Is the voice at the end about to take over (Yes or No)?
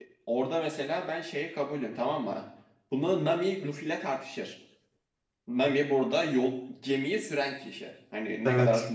No